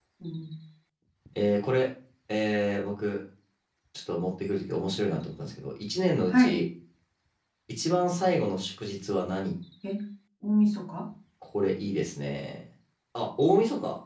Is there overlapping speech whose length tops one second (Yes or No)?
No